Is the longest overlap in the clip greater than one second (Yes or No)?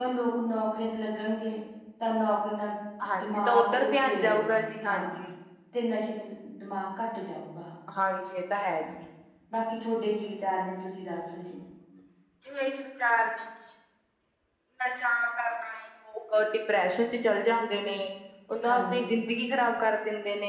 Yes